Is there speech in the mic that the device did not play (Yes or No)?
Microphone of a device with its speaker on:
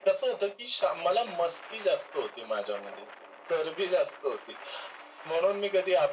No